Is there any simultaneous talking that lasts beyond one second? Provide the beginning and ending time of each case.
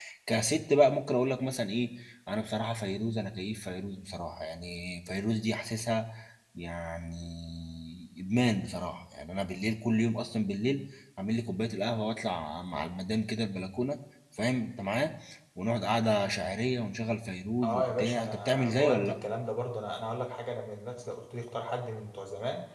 17.6-19.1

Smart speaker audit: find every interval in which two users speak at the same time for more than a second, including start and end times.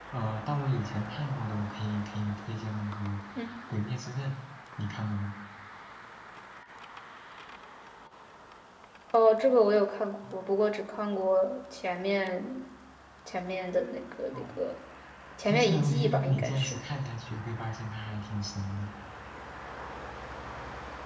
15.4-16.8

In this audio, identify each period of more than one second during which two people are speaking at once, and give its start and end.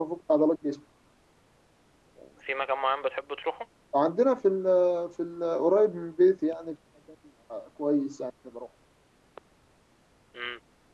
none

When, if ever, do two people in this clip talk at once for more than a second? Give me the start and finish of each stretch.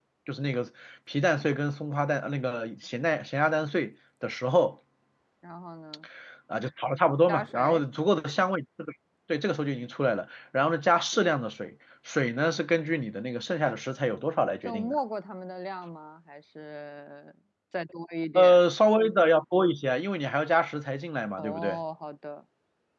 none

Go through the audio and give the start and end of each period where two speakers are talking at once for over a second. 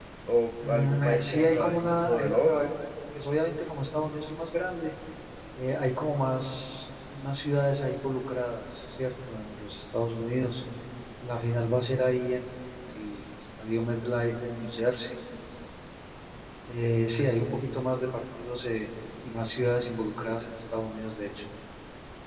0.7-2.8

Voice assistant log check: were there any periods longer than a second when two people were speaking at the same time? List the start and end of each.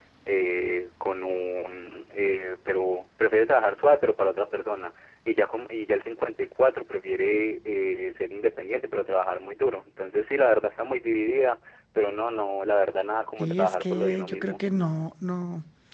13.4-14.6

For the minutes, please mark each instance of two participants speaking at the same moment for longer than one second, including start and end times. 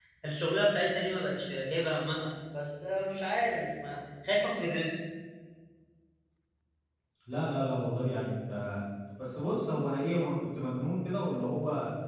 none

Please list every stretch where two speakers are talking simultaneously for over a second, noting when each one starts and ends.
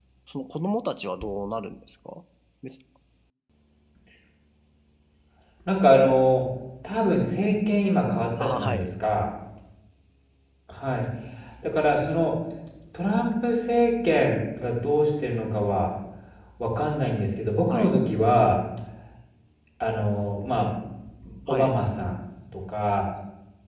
none

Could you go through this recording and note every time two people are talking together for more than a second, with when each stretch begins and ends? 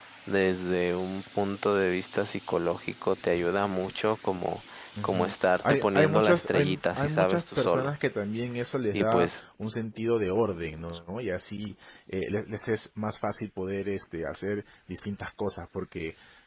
5.0-7.9

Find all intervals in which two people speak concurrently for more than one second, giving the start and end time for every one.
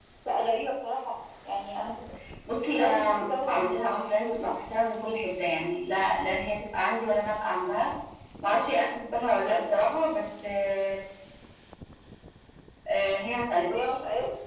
2.5-4.5

